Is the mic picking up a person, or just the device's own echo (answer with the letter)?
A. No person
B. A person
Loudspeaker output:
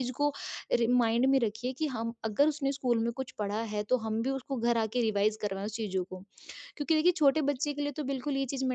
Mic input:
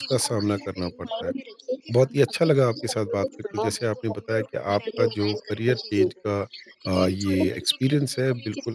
B